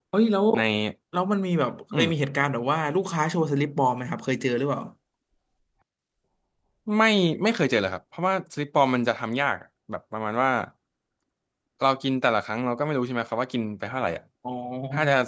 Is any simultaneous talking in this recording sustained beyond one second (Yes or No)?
No